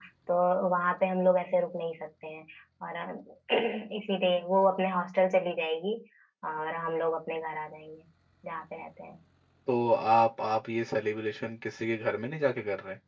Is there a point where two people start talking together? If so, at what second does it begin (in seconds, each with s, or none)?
none